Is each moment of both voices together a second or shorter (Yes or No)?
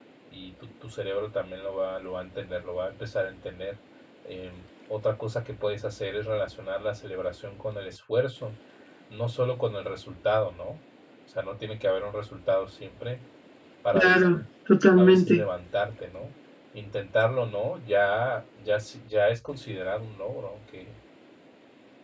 Yes